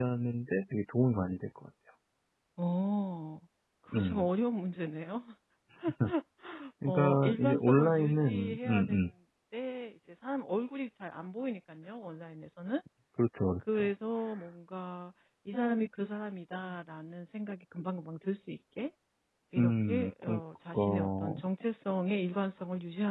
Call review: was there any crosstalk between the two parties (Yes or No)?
Yes